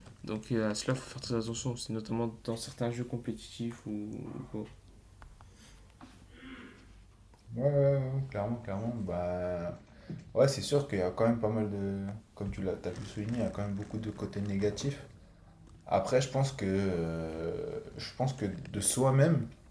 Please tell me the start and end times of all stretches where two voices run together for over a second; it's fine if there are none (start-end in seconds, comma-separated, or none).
none